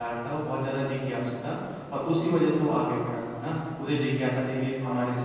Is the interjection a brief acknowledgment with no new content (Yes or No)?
Yes